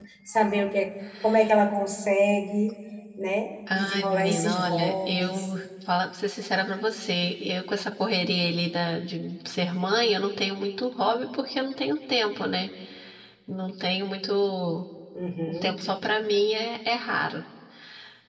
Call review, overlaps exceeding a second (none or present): present